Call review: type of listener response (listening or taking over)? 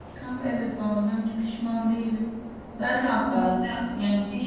listening